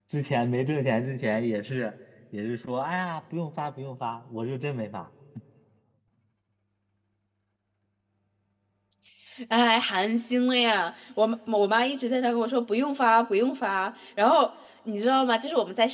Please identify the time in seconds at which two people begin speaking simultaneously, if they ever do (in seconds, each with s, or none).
none